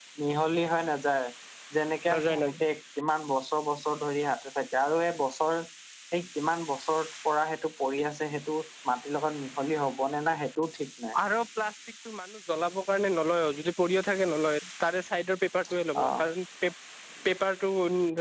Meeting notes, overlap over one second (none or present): none